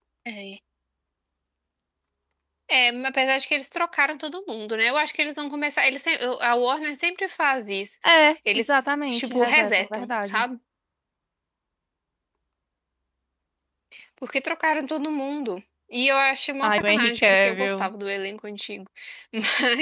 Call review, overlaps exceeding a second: present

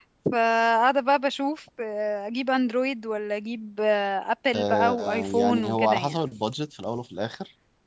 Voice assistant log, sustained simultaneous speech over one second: present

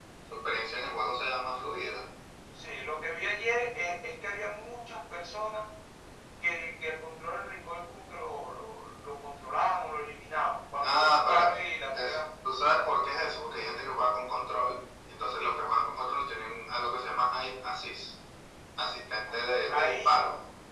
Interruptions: present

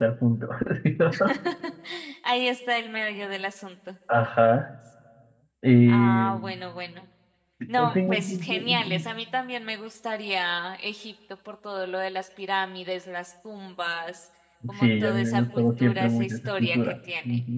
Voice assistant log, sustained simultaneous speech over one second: present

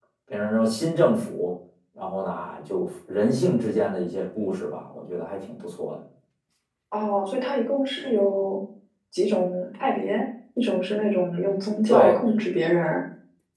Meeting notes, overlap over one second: none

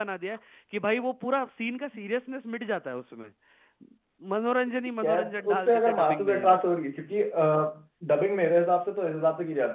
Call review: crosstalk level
present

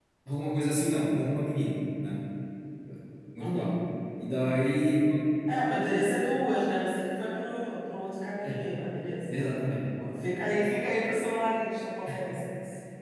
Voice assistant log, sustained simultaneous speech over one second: none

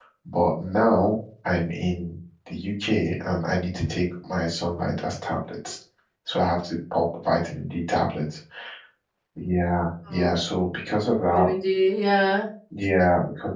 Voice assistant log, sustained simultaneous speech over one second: none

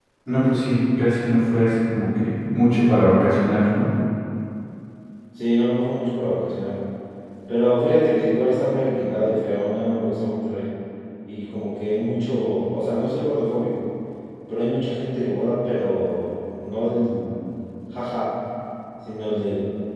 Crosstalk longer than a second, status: none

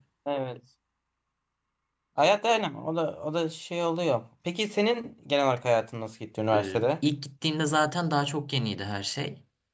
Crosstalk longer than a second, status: none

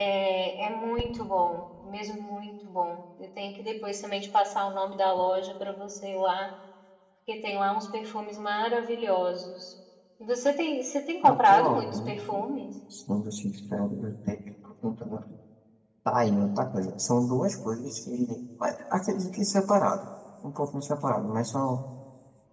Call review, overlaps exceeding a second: present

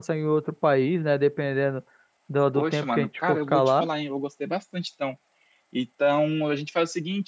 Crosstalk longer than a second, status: present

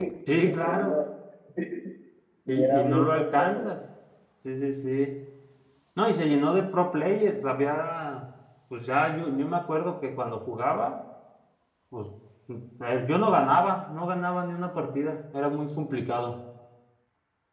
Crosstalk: present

